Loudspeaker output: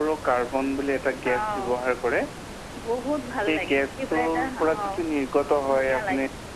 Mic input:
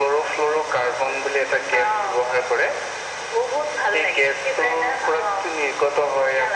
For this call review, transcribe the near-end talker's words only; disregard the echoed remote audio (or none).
none